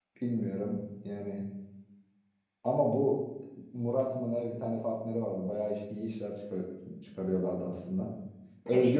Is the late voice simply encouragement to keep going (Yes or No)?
Yes